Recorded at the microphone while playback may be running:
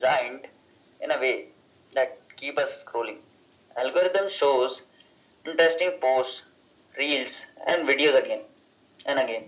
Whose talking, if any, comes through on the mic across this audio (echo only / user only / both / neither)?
echo only